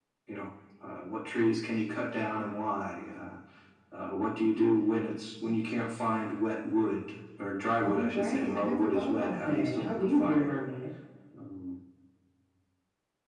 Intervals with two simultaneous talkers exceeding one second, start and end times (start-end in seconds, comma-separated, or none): 7.8-10.6